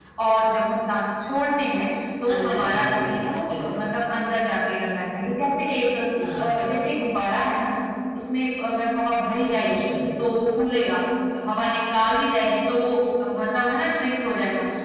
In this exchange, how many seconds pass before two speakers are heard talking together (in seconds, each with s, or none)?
2.3 s